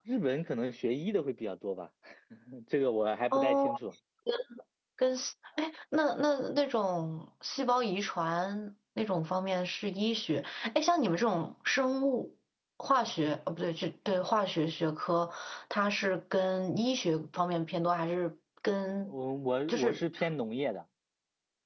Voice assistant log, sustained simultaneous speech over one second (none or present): none